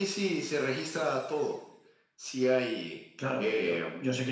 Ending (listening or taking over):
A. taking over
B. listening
A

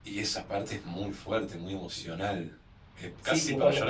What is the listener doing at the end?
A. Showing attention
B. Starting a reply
B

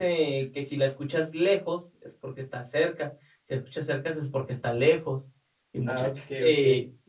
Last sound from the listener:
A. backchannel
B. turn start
B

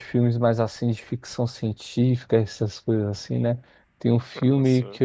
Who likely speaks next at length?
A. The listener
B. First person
B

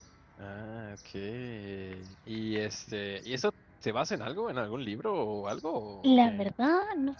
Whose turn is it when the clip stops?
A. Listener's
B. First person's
A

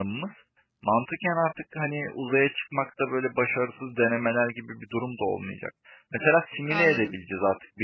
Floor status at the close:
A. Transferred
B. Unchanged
B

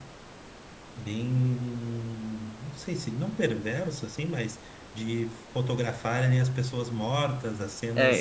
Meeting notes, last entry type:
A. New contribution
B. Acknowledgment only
A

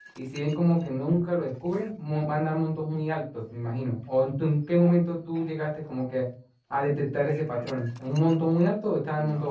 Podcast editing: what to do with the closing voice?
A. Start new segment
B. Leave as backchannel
A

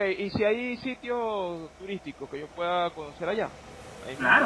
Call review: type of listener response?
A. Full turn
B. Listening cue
A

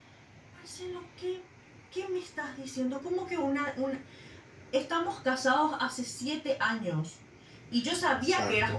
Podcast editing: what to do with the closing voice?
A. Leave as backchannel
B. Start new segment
A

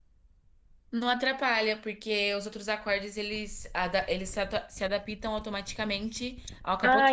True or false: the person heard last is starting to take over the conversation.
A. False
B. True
B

